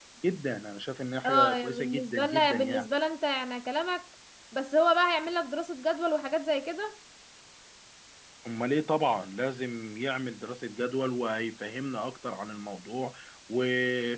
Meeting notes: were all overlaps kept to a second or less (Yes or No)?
No